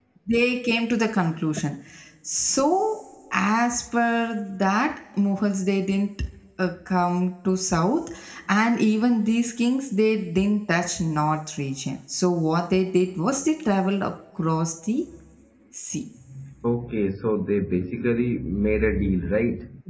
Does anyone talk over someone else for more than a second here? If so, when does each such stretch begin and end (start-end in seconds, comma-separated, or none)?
none